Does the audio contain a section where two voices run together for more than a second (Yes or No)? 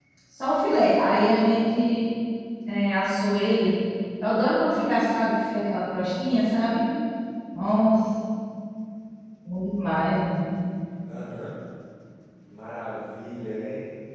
No